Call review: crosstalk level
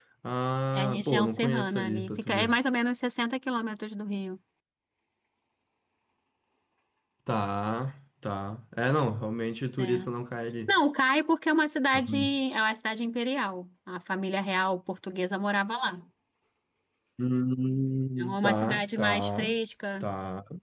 present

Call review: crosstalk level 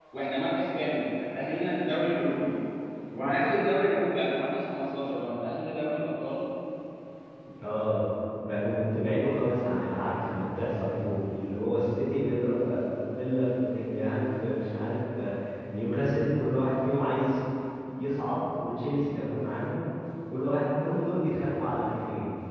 none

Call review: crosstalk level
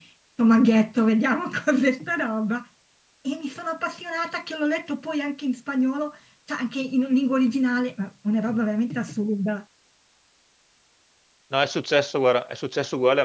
none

